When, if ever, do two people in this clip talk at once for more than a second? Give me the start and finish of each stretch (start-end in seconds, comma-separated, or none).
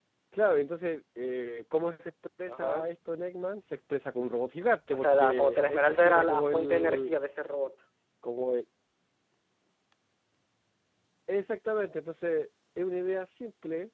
4.9-7.1